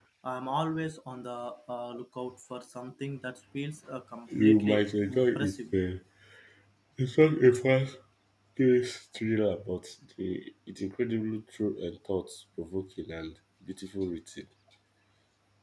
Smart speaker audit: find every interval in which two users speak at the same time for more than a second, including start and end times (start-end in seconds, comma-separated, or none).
4.4-5.7